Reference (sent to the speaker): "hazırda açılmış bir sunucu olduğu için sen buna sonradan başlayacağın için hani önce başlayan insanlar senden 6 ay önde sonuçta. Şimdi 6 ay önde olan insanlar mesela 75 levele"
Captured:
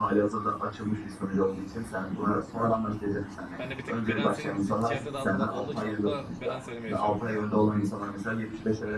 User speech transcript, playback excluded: ben de bir tık bedenselin ti- ticarette daha fazla olduğu için hatta beden söylemeyi düşünüyorum yani.

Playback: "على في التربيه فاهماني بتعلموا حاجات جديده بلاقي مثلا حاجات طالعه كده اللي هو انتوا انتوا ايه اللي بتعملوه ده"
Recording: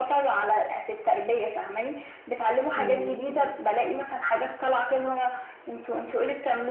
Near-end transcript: مم.

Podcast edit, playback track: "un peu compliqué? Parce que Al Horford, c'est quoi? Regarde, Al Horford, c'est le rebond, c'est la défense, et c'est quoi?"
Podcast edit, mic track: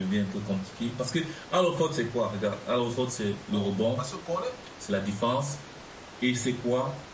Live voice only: bon, parce que Cornet,

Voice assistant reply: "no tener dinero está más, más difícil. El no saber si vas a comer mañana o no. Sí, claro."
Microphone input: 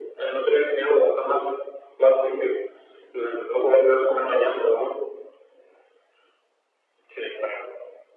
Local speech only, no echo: none

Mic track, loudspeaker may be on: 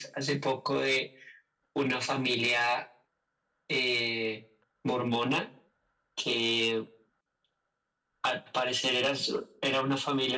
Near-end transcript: none

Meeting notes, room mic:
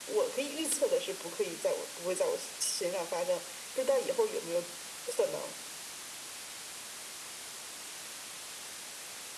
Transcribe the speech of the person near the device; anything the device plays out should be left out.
none

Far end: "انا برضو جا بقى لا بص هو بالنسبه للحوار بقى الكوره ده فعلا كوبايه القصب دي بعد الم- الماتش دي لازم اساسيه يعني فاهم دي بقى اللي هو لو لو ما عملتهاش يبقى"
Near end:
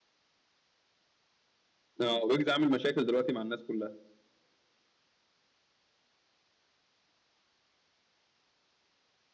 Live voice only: اه ويجز عامل مشاكل دلوقتي مع الناس كلها

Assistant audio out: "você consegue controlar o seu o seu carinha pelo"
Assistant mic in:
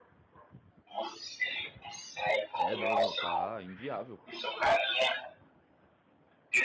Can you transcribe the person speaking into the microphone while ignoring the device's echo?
É, não, não, tá inviável,

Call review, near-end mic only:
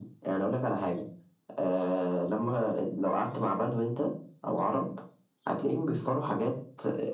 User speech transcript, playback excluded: none

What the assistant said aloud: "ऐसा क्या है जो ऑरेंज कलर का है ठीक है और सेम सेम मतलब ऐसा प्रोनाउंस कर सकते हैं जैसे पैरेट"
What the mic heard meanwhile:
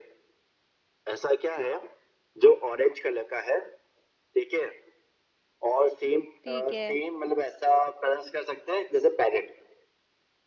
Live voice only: ठीक है

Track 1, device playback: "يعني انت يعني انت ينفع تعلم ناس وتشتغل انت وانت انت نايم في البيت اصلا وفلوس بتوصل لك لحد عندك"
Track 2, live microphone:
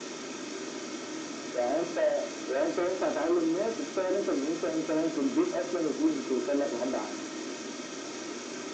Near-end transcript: none

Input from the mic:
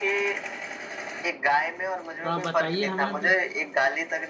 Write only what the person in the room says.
तो आप बताइए हमें भी

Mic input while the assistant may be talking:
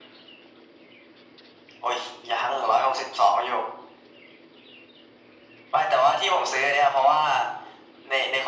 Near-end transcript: none

